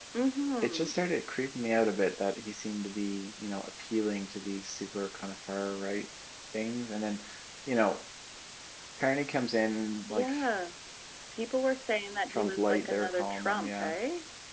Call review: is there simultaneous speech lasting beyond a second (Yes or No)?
Yes